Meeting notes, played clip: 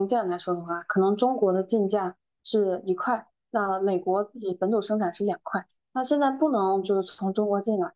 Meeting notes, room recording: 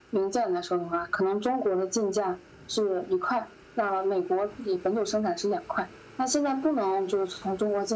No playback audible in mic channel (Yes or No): No